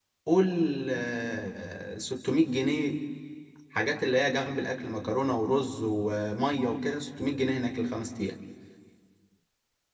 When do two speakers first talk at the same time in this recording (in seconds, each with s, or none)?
none